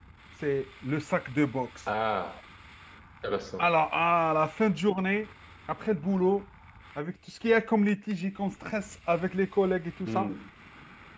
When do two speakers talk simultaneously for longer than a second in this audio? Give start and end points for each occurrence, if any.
none

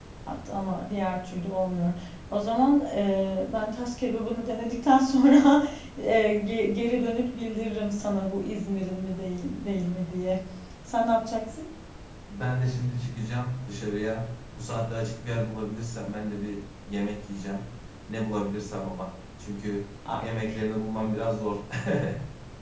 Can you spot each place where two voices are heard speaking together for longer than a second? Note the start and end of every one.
none

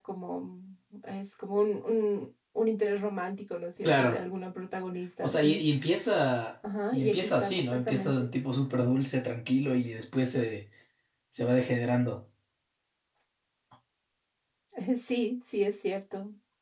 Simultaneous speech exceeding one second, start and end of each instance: 6.9-8.3

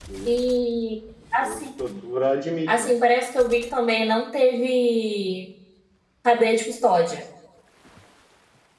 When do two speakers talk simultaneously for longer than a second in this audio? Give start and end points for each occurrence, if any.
none

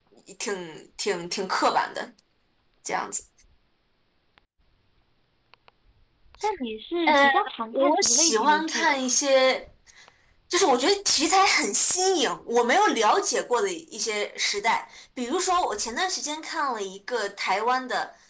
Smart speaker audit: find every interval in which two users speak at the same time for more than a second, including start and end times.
7.7-9.0

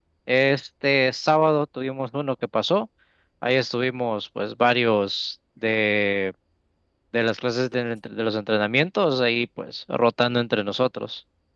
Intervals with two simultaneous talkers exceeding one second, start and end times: none

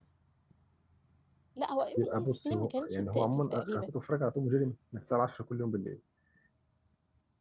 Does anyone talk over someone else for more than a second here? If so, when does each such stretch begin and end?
2.0-3.9

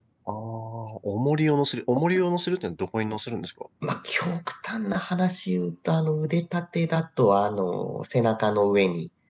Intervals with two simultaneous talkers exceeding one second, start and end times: none

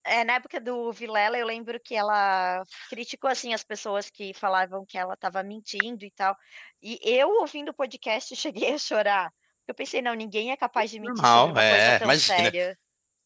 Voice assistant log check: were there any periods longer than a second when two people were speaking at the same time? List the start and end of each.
11.0-12.5

